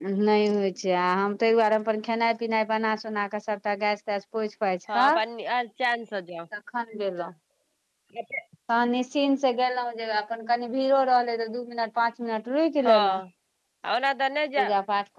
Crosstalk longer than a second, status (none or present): none